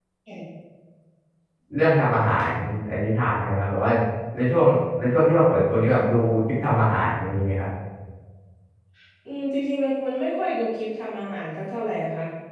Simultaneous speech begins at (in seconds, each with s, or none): none